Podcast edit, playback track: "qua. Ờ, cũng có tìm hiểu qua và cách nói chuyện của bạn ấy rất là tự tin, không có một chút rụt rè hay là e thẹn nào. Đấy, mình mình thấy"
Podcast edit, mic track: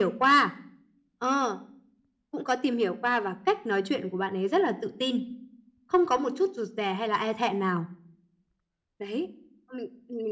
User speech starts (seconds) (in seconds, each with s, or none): none